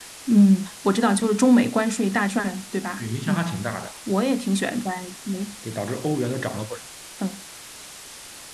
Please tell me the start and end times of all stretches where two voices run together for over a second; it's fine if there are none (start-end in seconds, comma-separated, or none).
none